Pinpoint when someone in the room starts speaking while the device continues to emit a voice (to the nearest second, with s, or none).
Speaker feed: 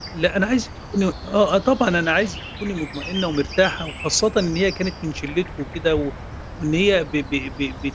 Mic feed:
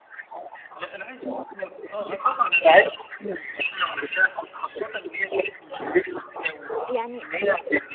7 s